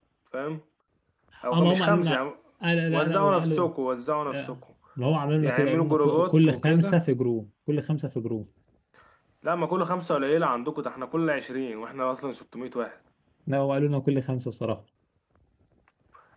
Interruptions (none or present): present